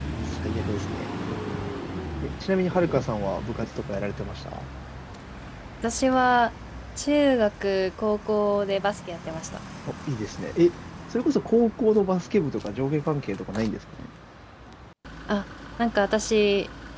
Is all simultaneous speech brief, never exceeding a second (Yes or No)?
Yes